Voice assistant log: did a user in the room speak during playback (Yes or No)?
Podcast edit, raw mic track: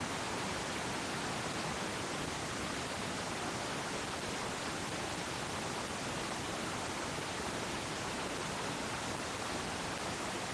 No